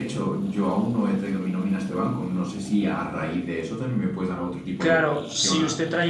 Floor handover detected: Yes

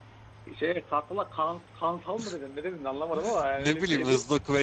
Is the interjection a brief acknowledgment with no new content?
No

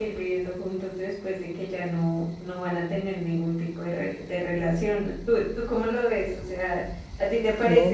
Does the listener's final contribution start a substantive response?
Yes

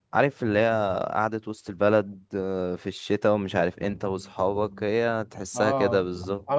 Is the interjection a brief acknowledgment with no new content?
No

